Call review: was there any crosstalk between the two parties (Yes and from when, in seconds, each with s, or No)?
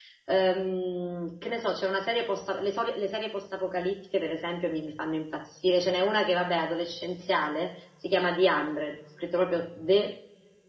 No